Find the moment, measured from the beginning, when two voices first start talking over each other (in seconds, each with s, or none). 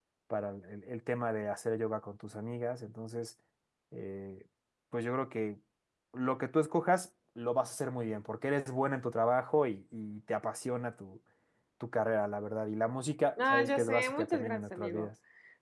13.4 s